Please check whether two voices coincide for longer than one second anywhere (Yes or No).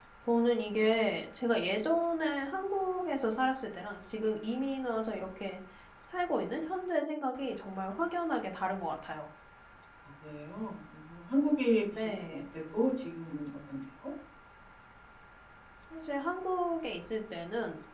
No